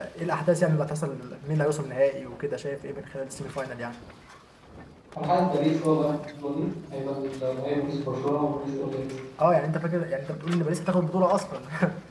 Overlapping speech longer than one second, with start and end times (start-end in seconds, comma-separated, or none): none